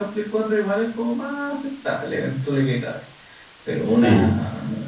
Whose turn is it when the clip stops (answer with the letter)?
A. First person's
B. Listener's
A